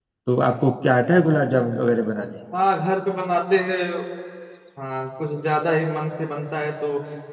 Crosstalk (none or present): none